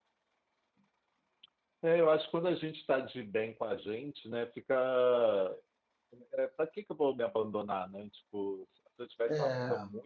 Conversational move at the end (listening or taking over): listening